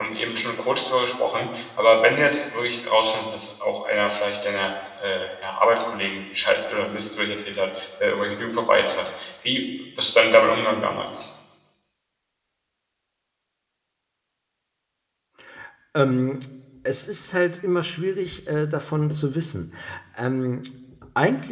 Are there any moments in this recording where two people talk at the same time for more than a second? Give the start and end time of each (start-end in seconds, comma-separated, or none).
none